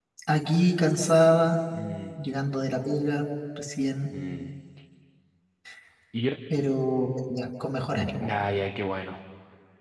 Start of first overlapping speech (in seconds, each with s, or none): none